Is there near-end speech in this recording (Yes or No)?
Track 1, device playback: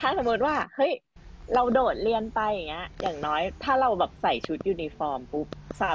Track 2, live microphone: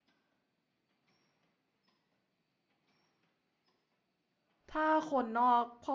Yes